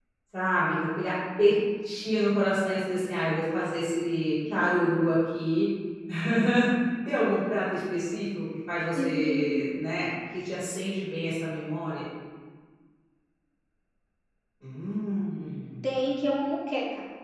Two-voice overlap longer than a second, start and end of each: none

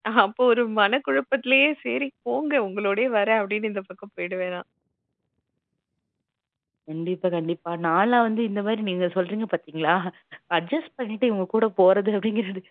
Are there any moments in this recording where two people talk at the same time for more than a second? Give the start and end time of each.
none

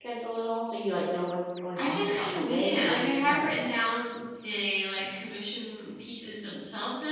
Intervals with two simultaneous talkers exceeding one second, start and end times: 1.8-3.7

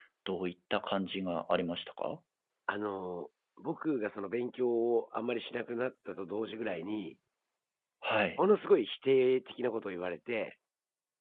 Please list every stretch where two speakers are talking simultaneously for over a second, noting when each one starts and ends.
none

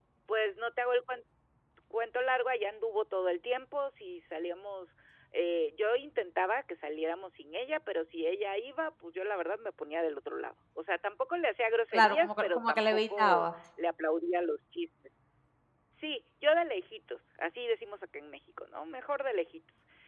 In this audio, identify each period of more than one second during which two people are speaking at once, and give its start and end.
11.9-13.5

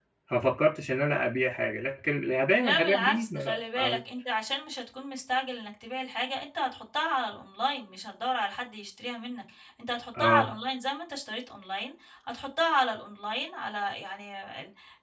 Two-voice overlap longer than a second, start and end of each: 2.6-4.0

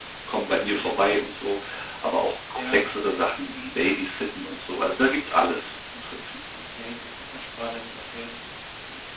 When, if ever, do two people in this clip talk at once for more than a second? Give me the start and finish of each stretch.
none

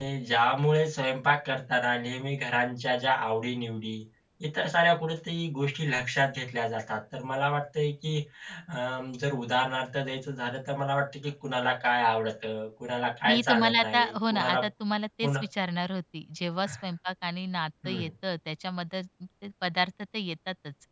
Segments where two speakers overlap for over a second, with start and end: 13.3-14.6

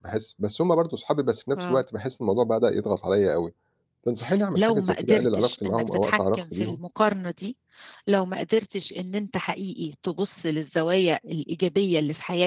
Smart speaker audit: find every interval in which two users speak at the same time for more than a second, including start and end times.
4.5-6.8

